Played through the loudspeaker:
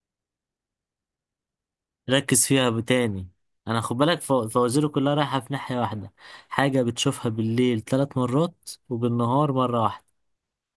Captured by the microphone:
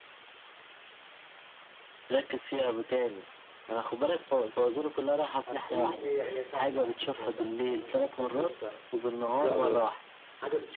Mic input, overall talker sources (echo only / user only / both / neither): both